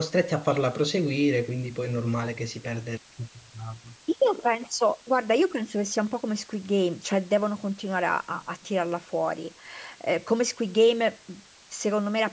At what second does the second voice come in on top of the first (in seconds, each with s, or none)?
none